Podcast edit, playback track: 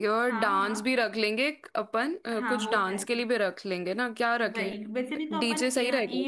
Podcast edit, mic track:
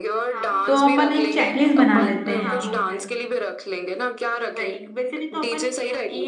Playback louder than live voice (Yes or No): No